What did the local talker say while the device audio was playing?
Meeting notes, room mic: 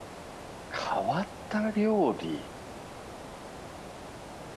変わった料理。

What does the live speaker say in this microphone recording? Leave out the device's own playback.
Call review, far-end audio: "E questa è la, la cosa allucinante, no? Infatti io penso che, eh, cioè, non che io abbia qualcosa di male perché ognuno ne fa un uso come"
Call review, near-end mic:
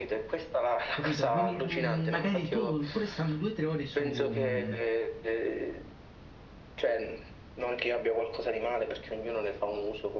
capito? Quindi mh, magari tu, pure stando due o tre ore su, mh,

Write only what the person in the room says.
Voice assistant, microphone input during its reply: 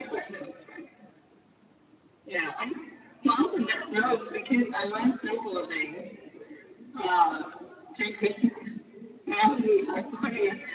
none

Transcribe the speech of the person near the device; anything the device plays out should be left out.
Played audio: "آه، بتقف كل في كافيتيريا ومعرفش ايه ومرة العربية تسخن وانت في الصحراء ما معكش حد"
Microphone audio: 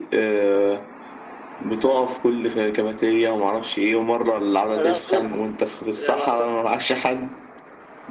انا انا ما حضرتش يعني ما حصل...

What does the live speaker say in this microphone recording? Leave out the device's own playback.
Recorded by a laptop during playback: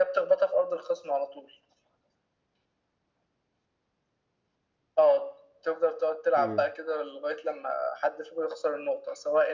امم

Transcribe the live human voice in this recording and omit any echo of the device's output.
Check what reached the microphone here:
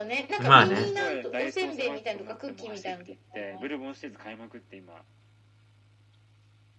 まあね。

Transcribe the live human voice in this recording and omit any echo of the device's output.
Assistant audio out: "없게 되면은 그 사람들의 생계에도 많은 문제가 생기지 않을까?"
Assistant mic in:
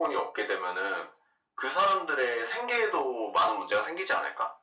none

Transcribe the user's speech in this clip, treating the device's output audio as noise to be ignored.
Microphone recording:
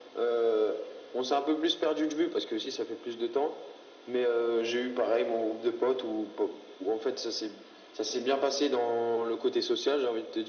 none

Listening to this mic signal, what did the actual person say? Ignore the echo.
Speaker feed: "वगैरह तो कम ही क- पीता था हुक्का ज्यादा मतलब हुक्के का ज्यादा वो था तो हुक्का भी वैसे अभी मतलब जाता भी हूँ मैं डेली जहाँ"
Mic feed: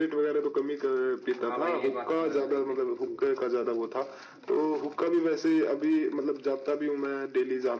हाँ भाई ये बात तो है भाई तो

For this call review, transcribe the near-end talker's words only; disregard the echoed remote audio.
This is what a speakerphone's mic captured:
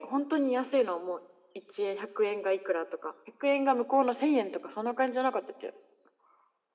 none

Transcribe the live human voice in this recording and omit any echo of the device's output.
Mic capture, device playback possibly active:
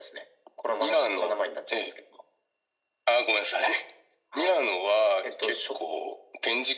none

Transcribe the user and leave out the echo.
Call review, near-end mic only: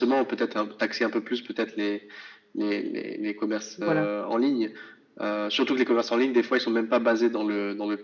Voilà.

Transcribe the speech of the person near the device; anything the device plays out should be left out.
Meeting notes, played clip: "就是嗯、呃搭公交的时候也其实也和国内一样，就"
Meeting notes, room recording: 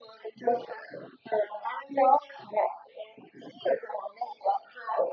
none

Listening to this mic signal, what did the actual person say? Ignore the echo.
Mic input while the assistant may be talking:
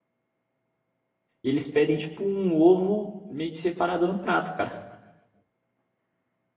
e eles pedem, tipo, um ovo meio que separado no prato, cara.

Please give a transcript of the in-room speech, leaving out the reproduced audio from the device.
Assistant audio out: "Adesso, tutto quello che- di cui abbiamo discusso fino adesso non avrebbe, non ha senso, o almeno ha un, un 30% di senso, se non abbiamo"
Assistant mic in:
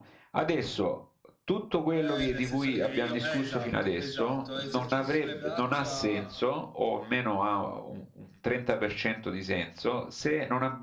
Eh, nel senso che io, eh, esatto, esatto, esercizi sulle braccia,

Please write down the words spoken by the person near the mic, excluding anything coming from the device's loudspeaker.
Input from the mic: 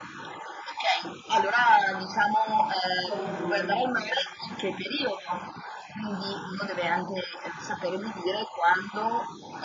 Certo.

